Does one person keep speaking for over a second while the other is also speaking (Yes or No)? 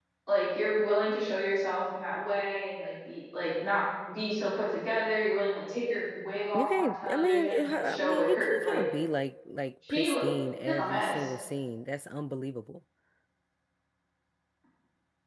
Yes